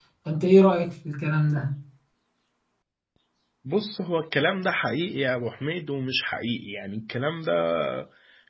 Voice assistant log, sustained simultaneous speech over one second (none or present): none